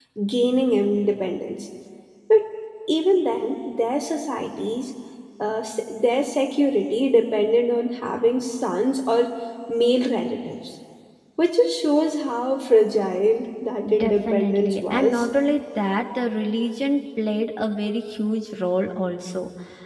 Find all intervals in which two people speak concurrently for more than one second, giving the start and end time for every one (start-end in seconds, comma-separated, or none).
14.0-15.3